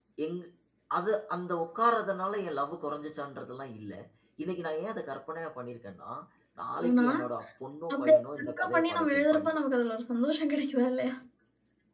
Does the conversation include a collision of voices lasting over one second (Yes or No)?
Yes